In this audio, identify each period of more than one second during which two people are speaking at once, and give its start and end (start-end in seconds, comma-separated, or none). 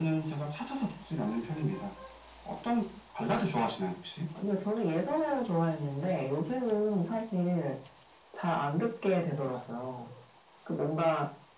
none